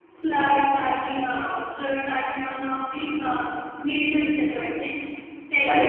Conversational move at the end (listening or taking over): taking over